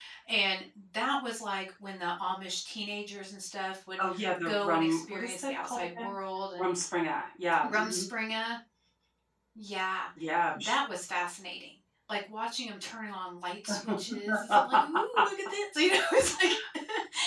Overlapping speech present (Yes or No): Yes